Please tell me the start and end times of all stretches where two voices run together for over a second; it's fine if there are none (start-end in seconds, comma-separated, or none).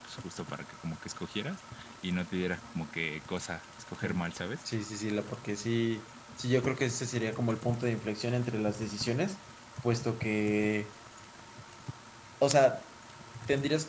none